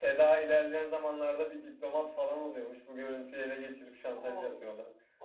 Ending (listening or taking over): taking over